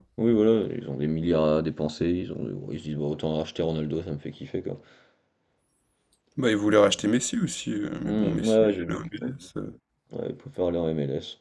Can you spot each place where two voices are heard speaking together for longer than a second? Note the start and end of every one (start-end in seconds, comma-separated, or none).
8.0-9.3